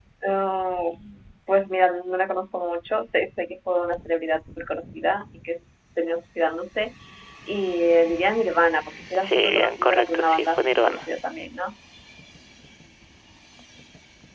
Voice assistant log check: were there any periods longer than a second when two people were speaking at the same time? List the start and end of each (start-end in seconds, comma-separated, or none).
9.2-11.0